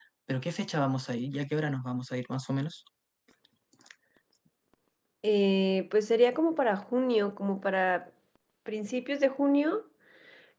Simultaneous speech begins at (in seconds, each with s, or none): none